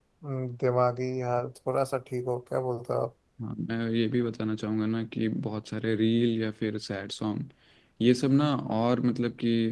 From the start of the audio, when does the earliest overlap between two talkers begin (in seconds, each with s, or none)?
none